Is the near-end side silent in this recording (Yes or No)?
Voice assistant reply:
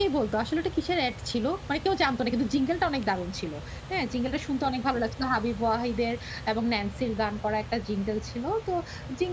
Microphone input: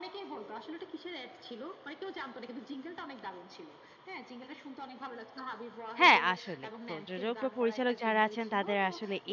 No